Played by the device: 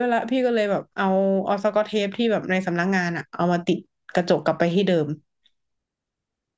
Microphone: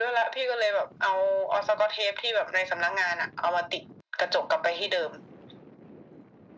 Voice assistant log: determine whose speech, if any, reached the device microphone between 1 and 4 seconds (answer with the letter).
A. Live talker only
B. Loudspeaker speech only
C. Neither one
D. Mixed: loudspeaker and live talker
B